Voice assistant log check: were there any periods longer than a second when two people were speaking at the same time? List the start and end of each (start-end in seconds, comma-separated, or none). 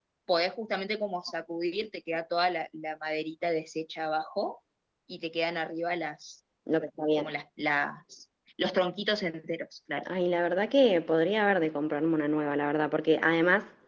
none